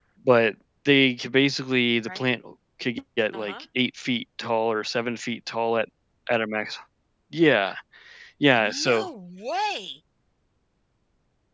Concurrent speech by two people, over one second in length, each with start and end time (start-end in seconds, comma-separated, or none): none